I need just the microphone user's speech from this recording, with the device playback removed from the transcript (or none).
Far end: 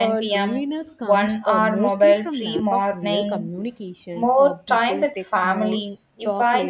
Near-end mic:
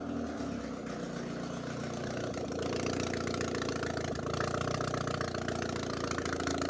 none